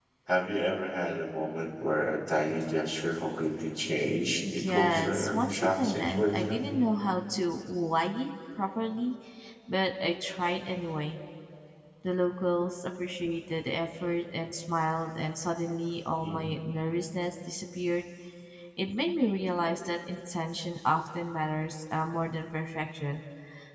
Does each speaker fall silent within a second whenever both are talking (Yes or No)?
No